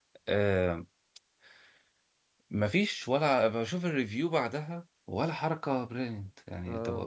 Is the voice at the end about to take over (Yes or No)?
Yes